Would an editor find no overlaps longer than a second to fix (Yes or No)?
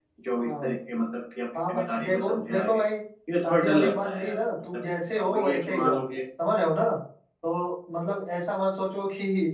No